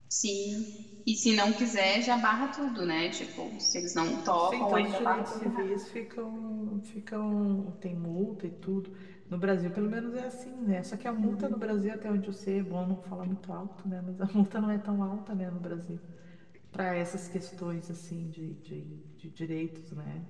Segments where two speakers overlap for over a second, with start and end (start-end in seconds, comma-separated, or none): 4.4-5.7